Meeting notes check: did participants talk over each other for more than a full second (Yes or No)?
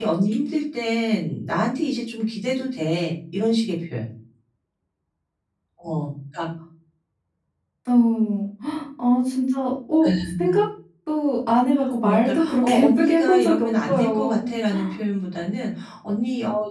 Yes